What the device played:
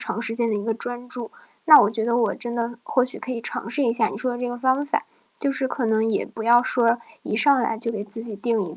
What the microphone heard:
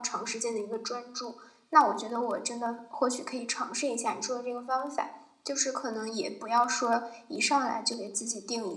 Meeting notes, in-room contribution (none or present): none